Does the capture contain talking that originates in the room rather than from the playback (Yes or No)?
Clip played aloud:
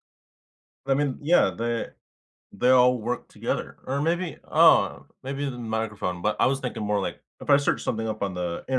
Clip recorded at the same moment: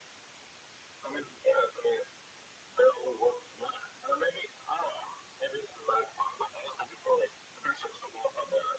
No